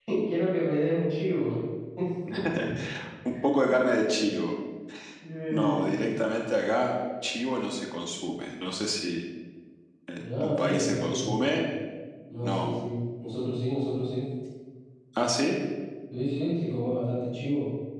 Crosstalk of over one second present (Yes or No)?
Yes